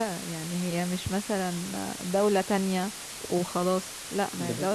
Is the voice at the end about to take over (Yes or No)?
No